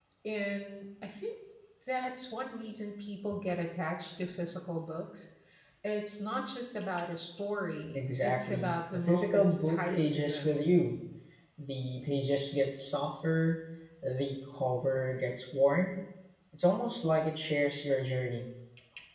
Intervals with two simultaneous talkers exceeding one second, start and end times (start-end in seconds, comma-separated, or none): 7.9-10.6